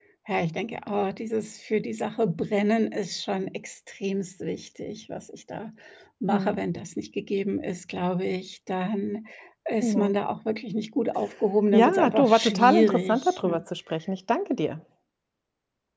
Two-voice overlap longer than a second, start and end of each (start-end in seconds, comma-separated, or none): 11.7-13.4